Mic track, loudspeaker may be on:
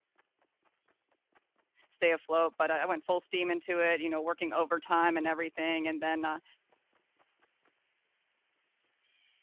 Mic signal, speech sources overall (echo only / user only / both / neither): user only